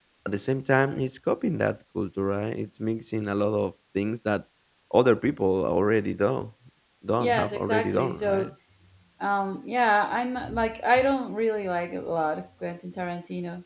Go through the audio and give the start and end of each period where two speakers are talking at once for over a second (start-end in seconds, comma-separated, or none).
7.2-8.5